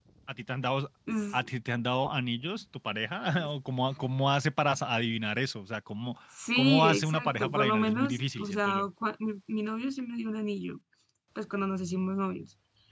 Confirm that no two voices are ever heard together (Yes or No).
No